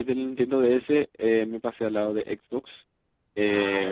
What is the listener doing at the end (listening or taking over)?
listening